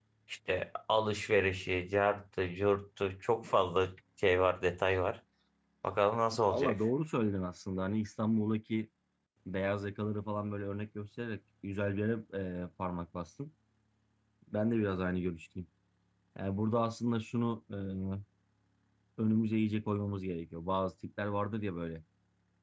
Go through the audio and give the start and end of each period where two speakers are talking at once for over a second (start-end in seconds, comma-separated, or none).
none